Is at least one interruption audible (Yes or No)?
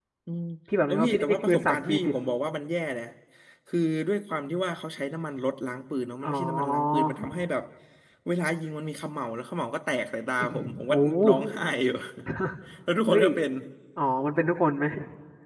Yes